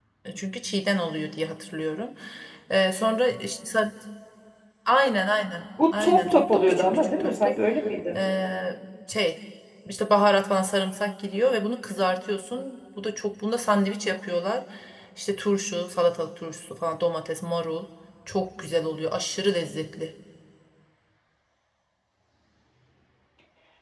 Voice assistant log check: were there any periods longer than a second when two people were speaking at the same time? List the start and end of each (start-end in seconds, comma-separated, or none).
6.0-7.6